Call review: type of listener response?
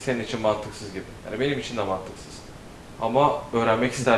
listening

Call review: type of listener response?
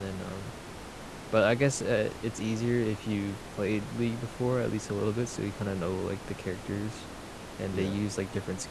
listening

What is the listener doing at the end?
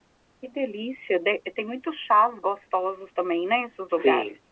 taking over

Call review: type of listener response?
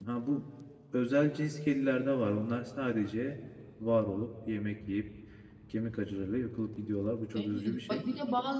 taking over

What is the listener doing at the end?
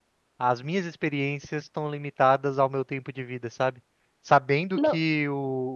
listening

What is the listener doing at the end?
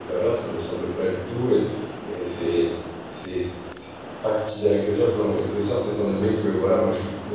listening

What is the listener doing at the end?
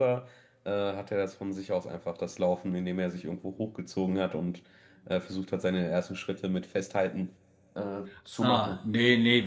taking over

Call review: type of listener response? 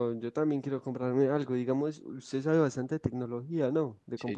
taking over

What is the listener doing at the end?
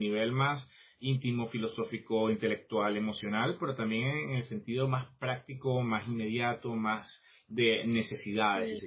taking over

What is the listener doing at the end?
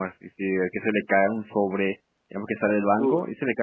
listening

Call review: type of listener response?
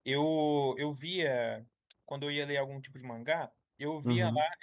listening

